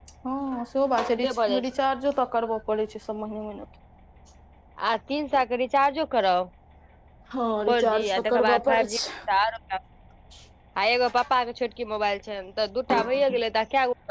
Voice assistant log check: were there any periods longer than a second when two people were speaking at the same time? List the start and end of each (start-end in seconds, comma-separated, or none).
7.7-9.0